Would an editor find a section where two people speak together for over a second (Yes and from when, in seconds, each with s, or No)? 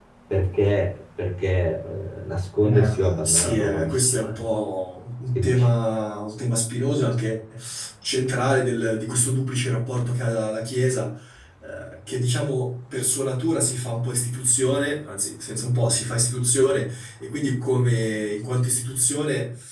Yes, from 2.6 s